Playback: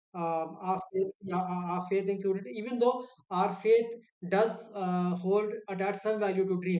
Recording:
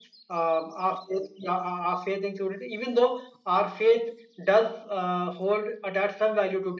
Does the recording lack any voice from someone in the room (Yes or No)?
Yes